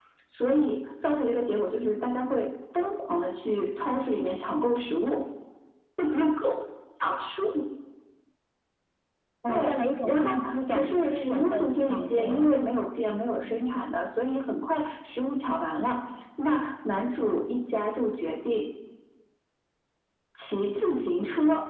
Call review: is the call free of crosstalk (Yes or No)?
No